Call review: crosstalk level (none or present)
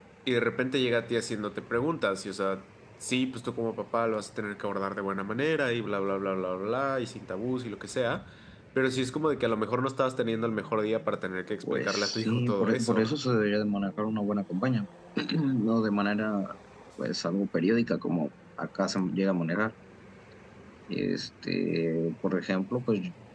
present